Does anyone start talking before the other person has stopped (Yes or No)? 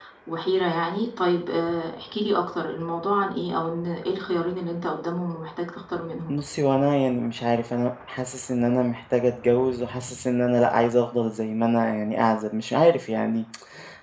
No